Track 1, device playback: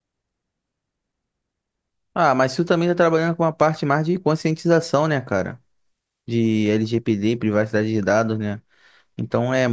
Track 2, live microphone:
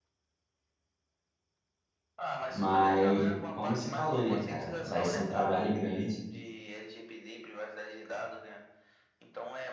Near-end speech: present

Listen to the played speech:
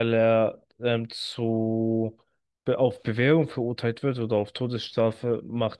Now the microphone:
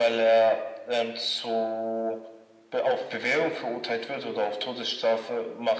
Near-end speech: none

